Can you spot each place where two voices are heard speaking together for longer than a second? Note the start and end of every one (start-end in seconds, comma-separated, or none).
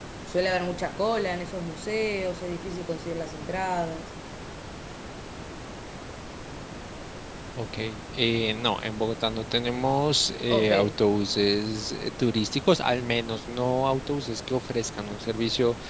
none